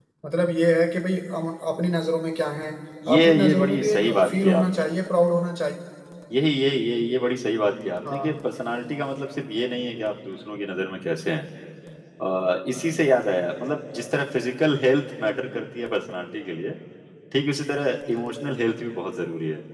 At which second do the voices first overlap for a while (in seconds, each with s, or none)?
3.2 s